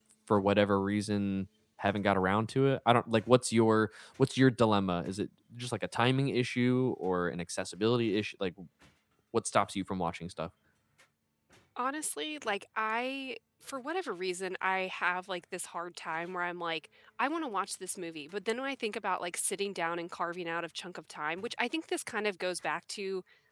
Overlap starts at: none

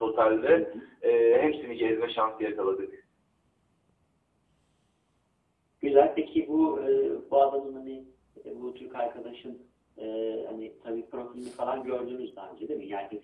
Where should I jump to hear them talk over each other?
none

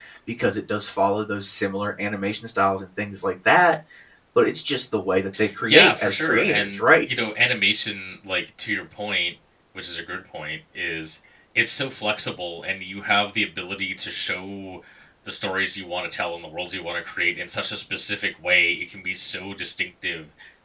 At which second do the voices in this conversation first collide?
6 s

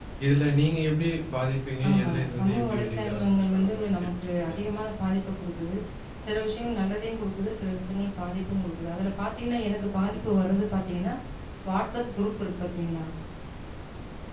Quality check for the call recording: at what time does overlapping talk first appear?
2 s

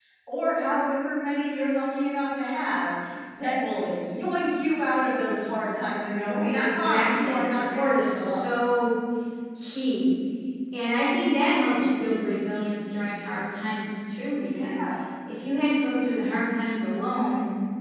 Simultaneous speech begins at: 6 s

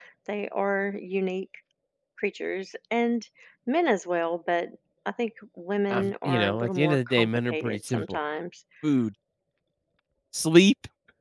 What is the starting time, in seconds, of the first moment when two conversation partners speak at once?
6 s

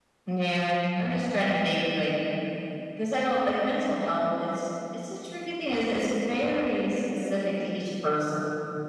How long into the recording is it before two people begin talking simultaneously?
none

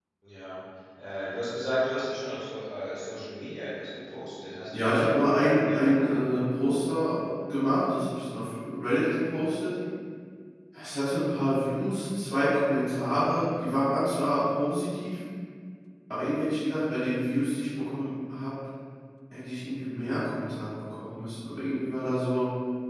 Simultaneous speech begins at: 5 s

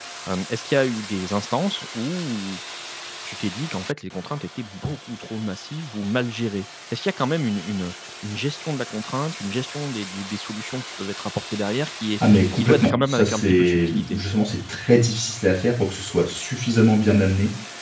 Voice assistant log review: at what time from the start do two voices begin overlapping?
12 s

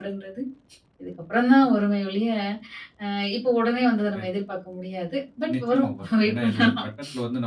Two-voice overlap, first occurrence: 5 s

